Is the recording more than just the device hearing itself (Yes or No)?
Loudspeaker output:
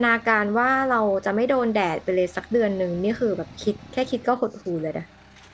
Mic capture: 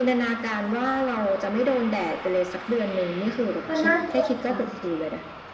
Yes